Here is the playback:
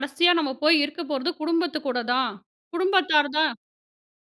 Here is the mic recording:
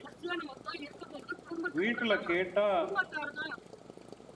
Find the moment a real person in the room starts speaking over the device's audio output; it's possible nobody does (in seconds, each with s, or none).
1.8 s